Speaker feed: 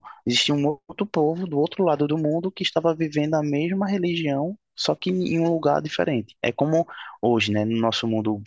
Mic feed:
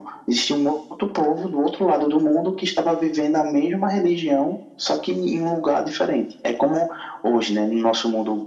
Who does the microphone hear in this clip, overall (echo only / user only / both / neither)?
echo only